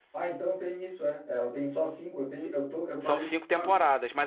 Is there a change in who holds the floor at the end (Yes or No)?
Yes